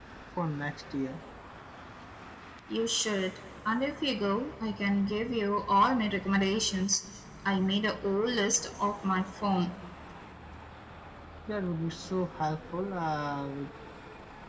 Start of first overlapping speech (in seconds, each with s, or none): none